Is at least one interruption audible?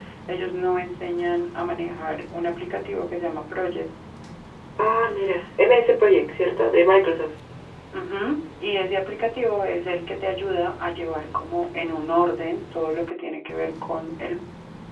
No

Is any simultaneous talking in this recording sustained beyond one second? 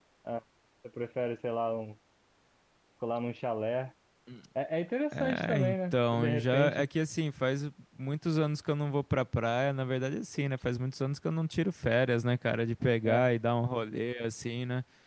Yes, from 5.1 s

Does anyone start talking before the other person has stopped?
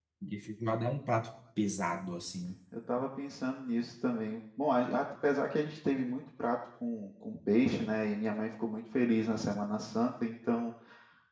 No

